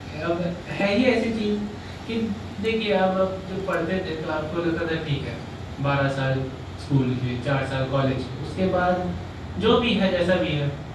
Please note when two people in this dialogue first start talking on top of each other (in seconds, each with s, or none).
none